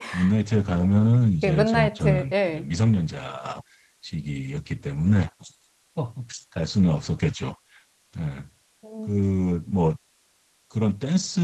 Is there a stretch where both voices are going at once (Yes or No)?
Yes